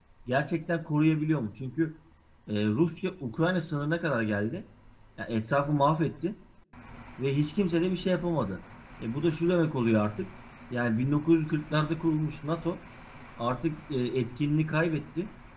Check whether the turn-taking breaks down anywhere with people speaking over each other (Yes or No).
No